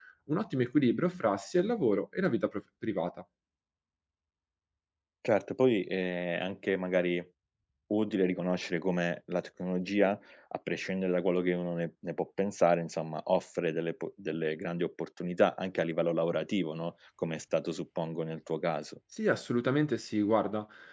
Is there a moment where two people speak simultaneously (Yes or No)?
No